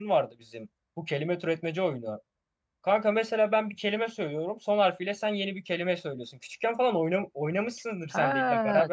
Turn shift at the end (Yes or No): Yes